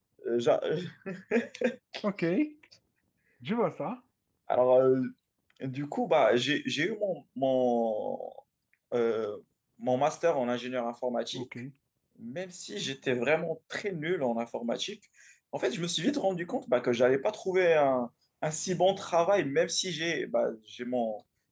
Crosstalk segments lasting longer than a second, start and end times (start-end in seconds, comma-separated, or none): none